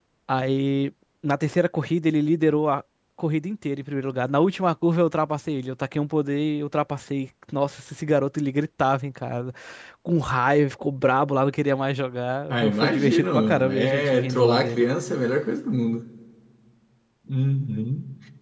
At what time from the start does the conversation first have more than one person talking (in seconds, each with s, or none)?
12.5 s